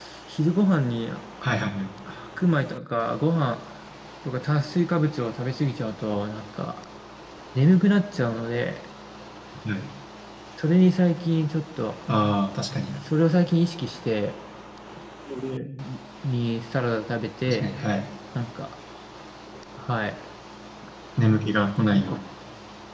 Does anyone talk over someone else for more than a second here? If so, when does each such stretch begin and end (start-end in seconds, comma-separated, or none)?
none